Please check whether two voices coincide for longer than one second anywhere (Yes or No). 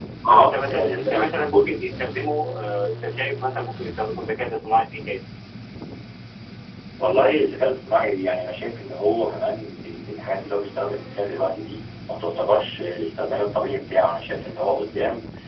Yes